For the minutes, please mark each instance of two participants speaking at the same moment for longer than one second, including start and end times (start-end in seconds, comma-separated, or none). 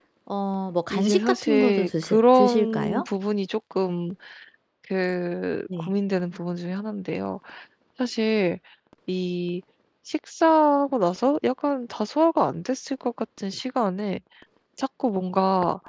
0.9-3.0